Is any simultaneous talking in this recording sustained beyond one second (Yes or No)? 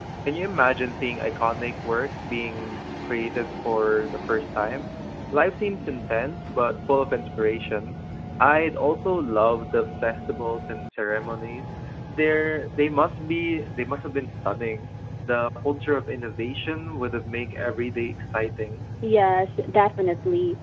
No